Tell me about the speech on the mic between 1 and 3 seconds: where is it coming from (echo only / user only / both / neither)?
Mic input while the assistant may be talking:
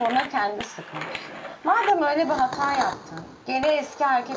user only